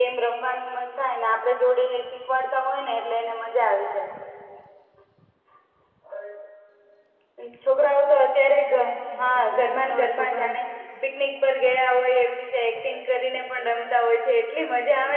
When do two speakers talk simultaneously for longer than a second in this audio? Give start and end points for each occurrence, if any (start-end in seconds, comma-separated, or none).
9.2-10.6